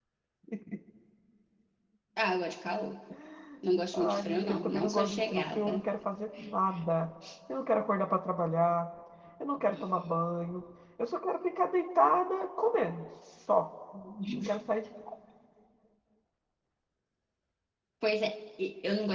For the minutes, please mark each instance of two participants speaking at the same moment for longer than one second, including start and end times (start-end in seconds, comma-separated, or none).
3.9-5.7